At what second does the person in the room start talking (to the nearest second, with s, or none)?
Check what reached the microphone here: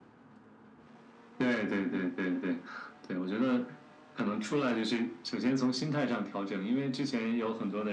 none